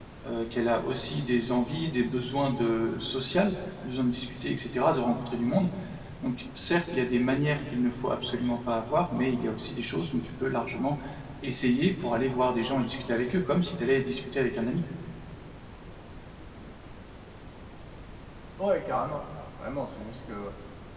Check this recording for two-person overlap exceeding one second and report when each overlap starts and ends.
none

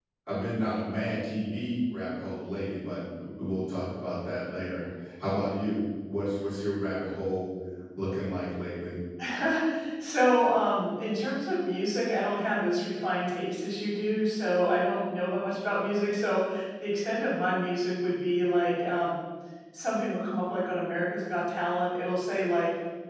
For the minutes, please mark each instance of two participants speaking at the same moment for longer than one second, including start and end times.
none

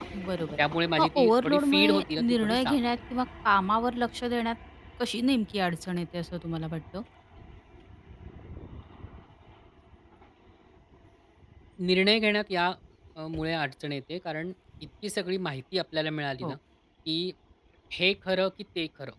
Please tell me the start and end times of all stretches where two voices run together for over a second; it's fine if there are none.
1.0-2.8

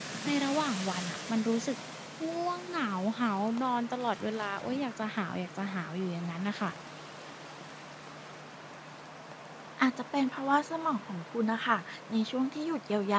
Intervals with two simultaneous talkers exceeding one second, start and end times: none

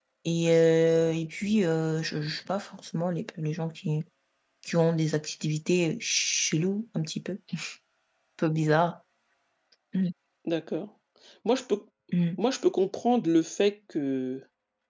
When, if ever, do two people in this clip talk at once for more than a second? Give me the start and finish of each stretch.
none

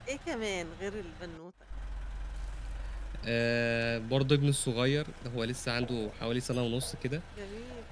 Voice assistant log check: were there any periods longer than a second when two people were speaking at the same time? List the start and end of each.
none

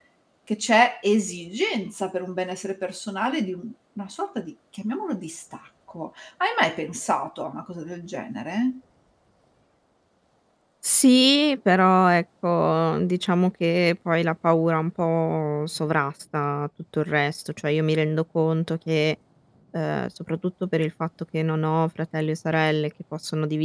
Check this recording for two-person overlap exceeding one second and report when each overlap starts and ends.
none

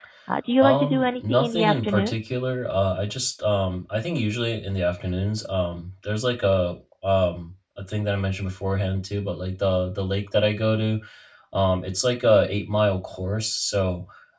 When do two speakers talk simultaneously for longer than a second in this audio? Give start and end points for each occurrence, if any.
0.6-2.2

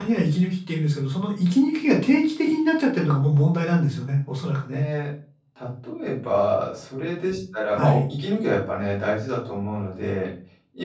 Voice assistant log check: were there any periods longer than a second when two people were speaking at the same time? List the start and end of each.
none

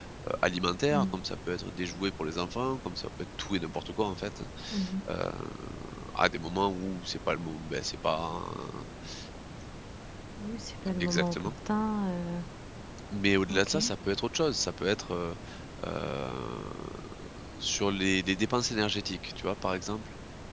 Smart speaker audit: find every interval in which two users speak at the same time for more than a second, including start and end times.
none

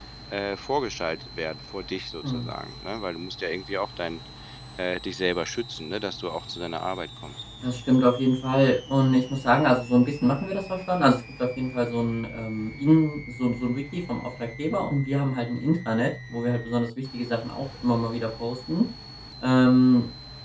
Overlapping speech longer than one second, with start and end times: none

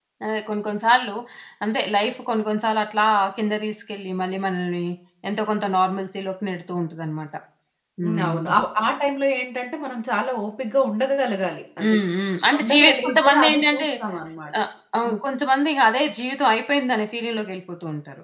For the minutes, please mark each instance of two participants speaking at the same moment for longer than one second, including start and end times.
12.6-13.9

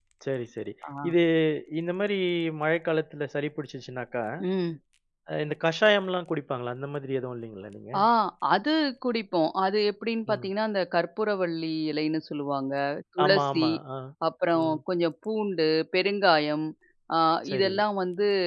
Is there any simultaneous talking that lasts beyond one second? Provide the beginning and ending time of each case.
none

